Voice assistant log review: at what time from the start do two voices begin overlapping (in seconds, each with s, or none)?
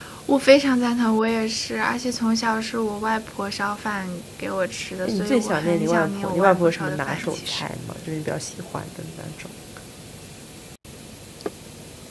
5.0 s